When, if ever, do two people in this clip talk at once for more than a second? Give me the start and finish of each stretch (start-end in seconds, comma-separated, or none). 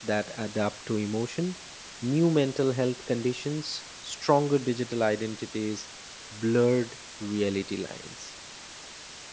none